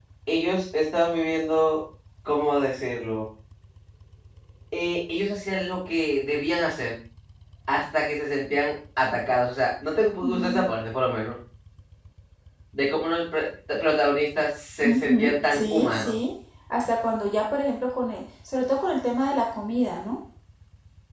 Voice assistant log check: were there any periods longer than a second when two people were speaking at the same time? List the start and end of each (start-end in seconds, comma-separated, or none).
14.8-16.1